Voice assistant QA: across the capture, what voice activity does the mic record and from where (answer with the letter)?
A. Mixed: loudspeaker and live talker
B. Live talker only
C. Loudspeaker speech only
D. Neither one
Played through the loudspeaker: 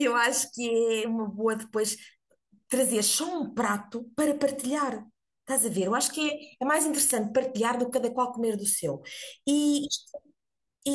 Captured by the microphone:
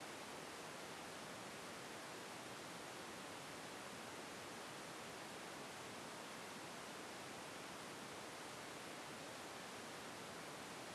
D